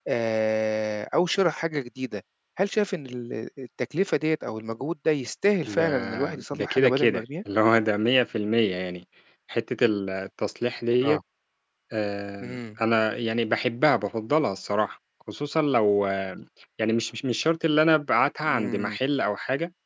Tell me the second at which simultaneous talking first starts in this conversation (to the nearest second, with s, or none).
6 s